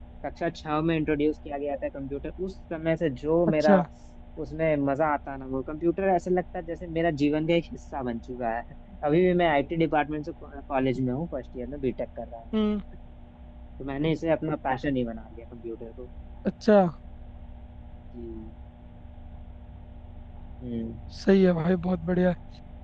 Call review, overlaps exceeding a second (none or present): none